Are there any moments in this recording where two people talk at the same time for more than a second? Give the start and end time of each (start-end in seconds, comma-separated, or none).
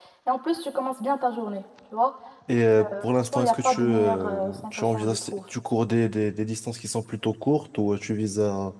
2.8-5.4